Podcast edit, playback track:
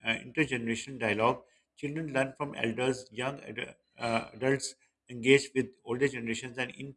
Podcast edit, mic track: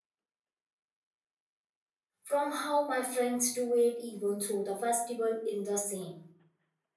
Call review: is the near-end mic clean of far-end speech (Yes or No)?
Yes